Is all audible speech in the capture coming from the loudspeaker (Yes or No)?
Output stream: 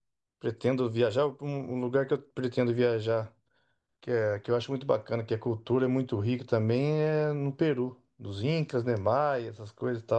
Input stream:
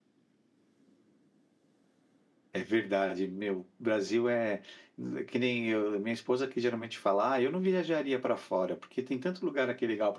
No